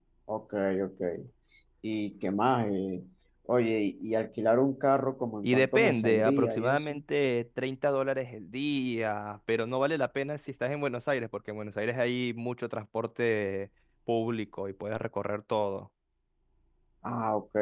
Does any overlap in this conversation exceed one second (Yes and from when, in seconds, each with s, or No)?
Yes, from 5.4 s